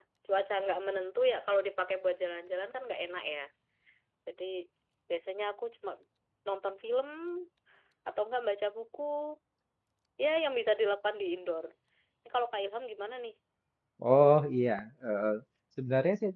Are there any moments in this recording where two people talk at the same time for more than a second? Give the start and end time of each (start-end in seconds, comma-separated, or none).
none